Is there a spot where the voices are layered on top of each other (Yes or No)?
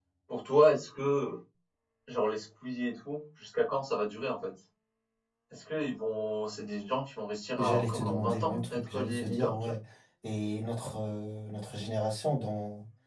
Yes